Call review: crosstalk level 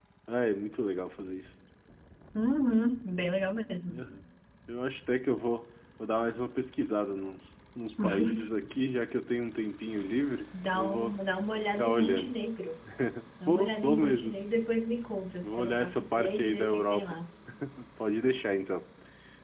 present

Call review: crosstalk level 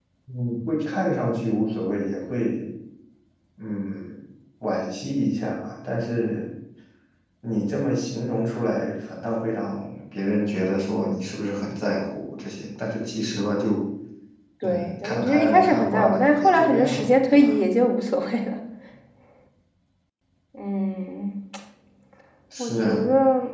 present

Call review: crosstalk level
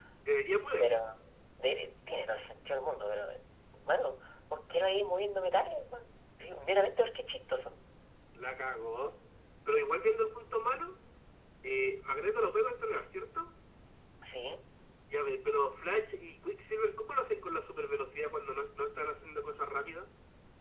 none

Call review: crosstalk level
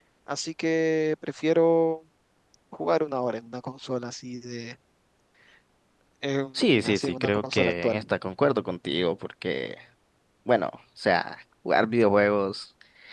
present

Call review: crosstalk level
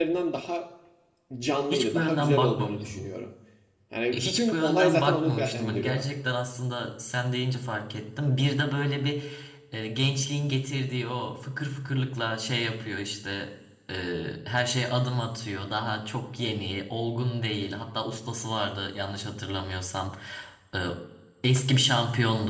present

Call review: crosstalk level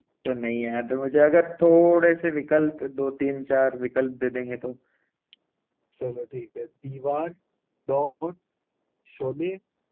none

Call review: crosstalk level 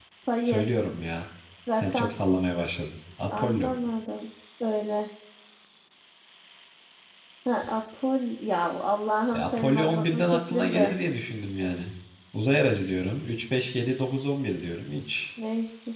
present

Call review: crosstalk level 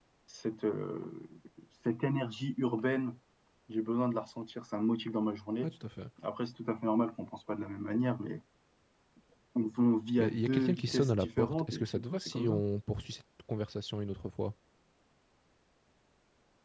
present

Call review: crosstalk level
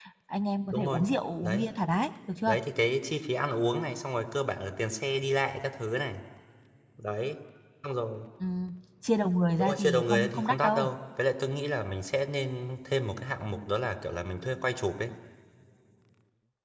present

